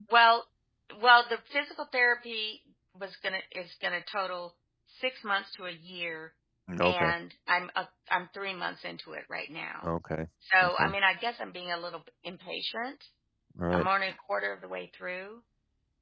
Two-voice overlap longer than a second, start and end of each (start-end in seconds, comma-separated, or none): none